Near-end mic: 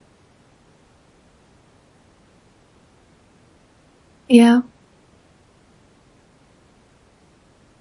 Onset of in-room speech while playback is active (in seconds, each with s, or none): 4.3 s